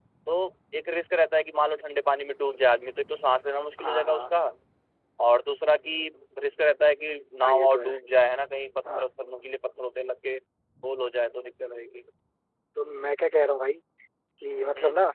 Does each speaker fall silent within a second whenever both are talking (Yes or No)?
Yes